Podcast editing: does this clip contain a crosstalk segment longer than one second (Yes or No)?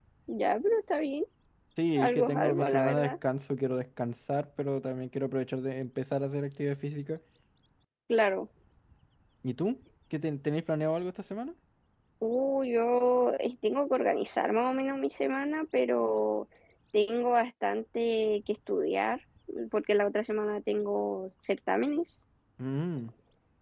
Yes